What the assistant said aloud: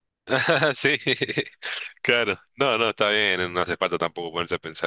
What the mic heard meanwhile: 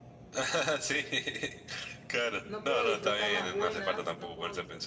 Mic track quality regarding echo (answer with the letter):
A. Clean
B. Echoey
B